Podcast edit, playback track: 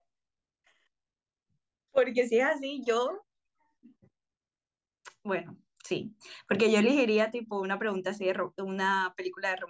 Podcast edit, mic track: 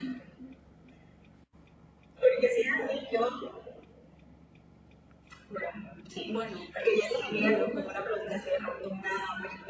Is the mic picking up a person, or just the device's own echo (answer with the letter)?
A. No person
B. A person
B